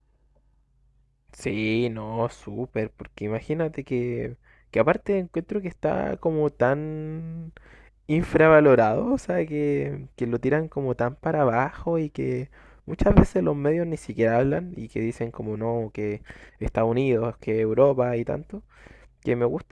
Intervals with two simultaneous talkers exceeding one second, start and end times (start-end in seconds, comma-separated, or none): none